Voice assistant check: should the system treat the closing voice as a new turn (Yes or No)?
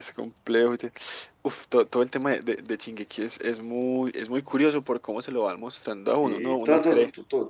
Yes